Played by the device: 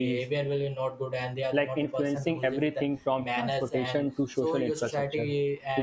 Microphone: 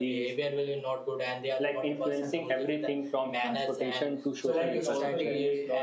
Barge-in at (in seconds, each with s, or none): 4.4 s